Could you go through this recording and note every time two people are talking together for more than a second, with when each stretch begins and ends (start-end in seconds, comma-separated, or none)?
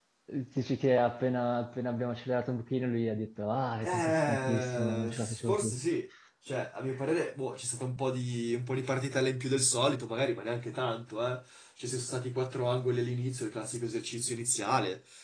3.8-5.7